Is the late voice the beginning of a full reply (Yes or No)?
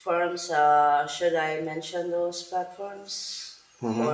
Yes